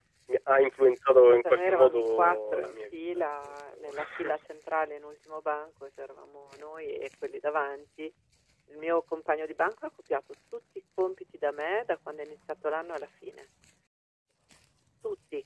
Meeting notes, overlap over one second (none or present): present